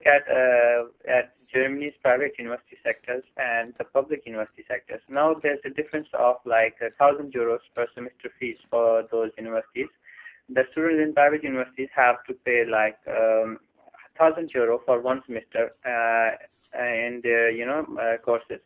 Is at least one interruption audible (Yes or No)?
No